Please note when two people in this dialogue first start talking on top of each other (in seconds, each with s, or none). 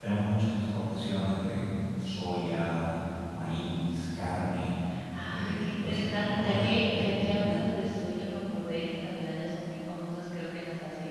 5.3 s